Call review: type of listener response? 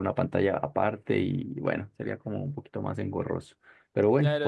taking over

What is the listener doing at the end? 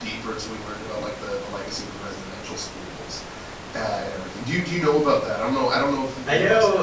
taking over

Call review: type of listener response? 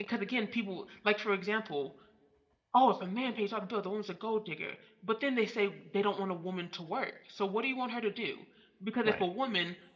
listening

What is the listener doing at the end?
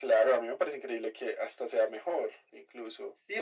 taking over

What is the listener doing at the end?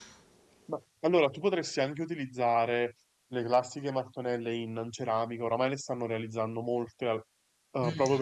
taking over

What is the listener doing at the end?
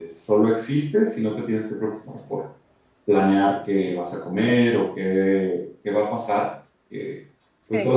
listening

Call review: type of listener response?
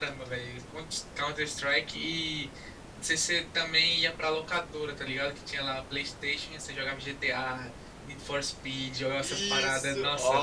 taking over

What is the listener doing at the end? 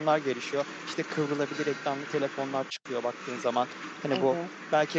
listening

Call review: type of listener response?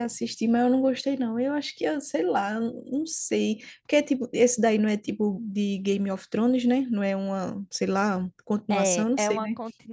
taking over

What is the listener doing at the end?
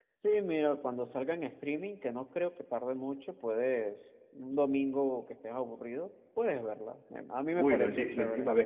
taking over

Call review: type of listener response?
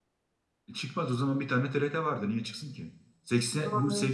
listening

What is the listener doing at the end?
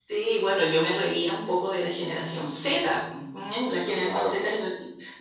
listening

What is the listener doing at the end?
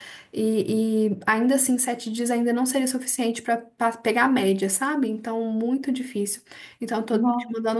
listening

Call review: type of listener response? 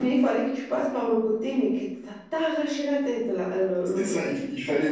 taking over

